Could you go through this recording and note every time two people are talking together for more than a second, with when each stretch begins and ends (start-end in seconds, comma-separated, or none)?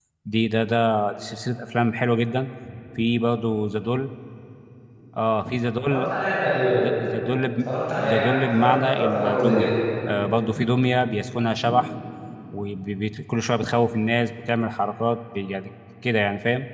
8.0-9.7